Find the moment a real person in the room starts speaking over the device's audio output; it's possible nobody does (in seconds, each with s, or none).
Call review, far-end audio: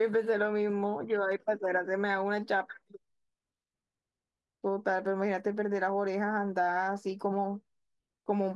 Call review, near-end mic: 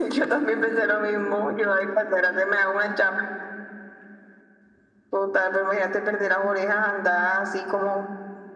none